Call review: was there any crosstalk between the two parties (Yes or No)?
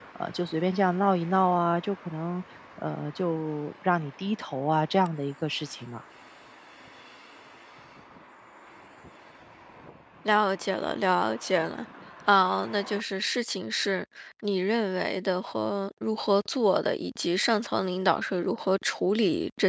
No